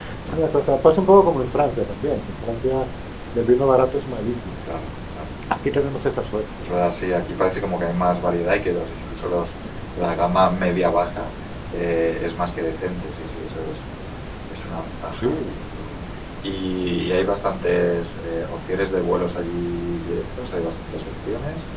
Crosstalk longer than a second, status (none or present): none